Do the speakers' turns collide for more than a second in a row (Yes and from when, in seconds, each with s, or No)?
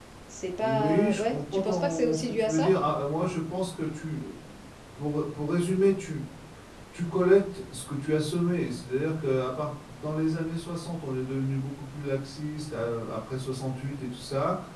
Yes, from 0.6 s